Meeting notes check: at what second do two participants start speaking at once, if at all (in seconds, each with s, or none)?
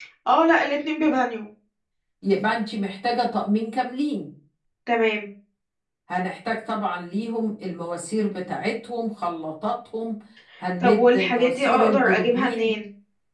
10.8 s